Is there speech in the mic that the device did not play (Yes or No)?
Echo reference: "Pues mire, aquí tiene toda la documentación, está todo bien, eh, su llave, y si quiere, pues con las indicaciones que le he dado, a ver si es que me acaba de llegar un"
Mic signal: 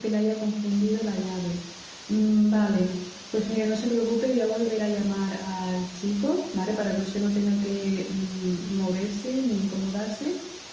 Yes